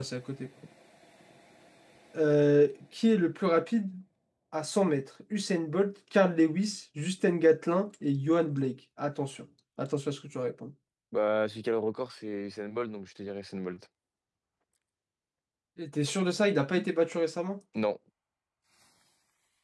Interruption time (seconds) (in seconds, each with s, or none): none